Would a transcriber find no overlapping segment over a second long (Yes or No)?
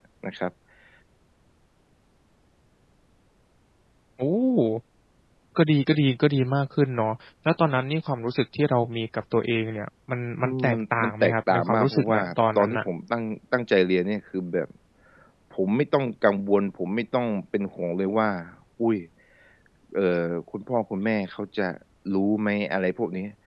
No